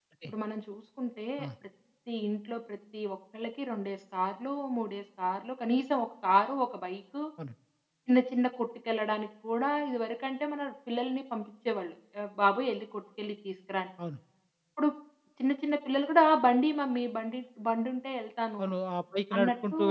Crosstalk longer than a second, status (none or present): none